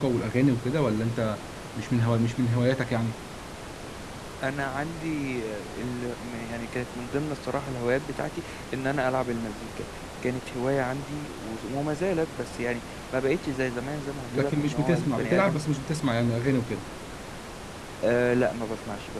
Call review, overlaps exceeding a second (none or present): present